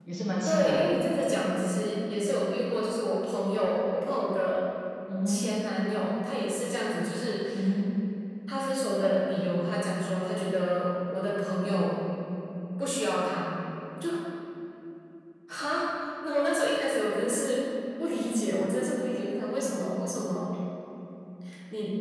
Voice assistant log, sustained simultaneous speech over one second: none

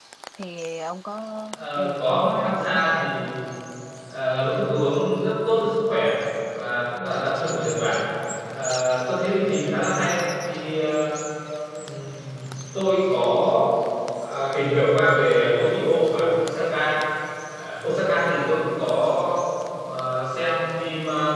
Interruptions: present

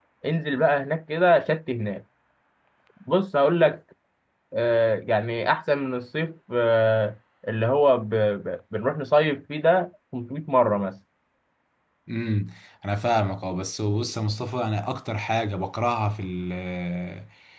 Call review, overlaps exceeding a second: none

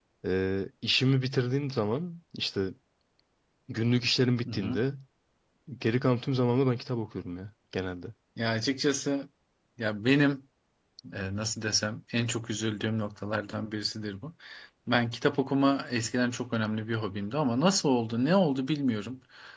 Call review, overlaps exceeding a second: none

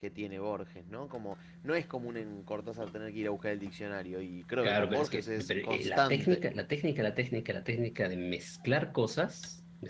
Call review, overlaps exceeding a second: present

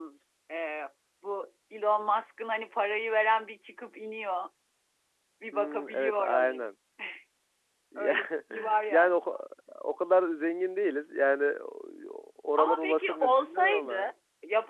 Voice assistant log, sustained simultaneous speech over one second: present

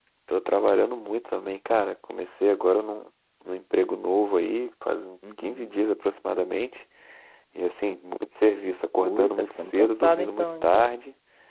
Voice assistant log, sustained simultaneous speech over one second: present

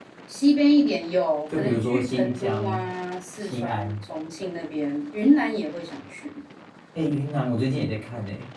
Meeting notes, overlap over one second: present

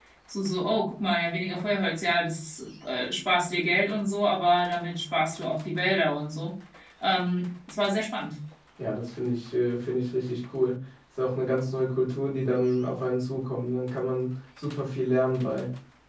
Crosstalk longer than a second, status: none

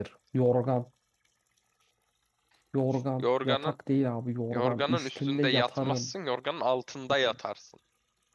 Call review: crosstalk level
present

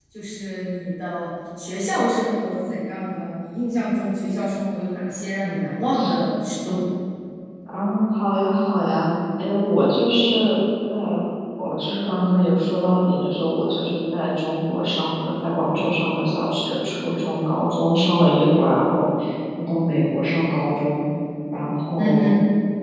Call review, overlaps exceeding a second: none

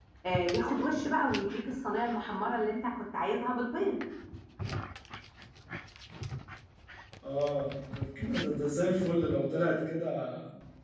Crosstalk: none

